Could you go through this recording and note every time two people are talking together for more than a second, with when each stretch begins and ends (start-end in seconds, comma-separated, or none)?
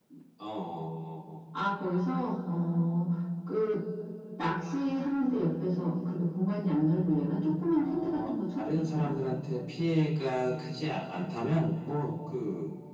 7.8-9.1